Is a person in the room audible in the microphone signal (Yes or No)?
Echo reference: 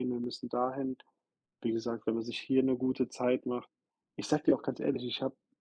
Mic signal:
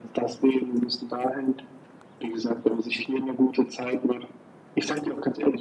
No